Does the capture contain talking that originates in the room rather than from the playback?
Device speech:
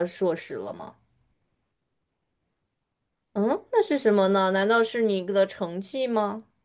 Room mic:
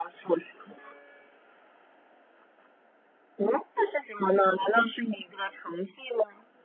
No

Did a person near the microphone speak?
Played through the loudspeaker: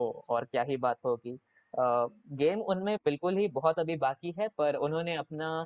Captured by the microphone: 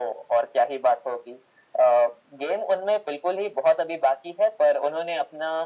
No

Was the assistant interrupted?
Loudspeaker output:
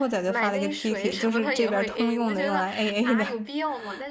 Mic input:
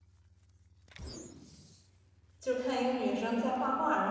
Yes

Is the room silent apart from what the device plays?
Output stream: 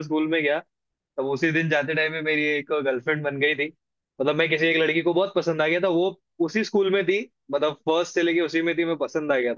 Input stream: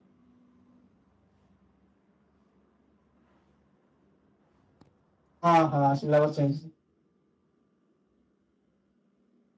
No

